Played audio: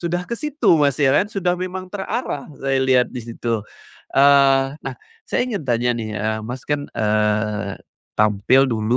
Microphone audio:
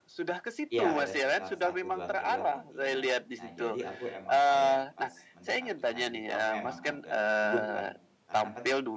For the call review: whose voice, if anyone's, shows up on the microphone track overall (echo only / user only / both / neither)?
both